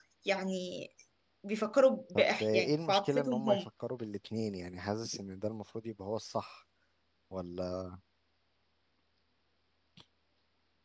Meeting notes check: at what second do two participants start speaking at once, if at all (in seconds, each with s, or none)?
2.2 s